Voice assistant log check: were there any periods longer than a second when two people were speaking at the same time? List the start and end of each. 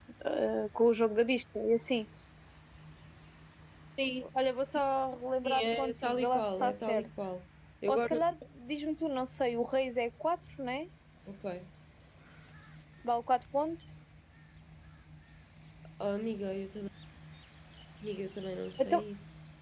5.6-7.1

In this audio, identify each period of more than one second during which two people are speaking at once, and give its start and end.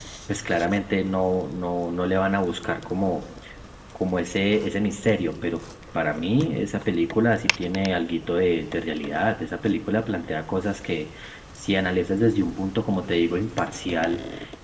none

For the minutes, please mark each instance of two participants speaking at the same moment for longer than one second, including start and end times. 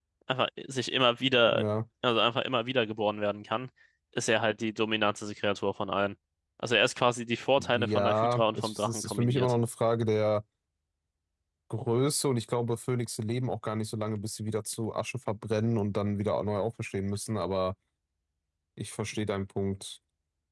7.8-9.5

